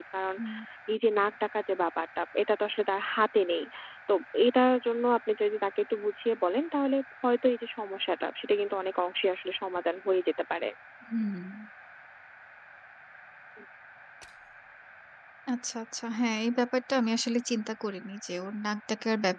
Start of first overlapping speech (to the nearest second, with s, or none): none